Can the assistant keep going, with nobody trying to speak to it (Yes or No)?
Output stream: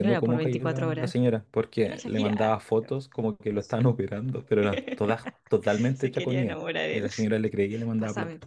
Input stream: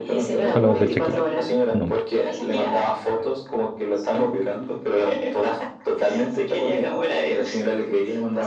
No